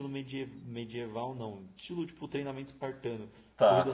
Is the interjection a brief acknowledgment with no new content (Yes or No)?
Yes